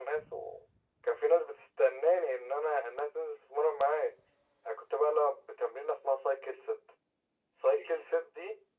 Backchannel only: Yes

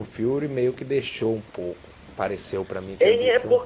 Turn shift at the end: Yes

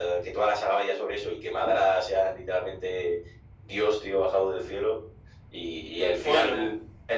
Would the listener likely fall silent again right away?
Yes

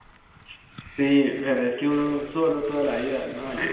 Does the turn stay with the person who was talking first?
No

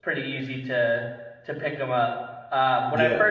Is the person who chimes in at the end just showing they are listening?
Yes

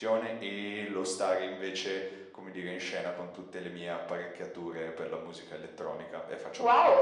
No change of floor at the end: No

